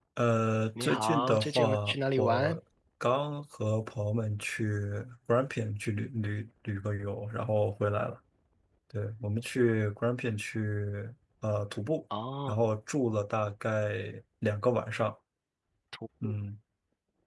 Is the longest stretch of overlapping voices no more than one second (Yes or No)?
No